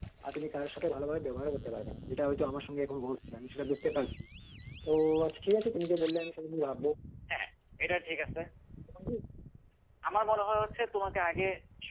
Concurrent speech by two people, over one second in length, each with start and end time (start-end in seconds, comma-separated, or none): none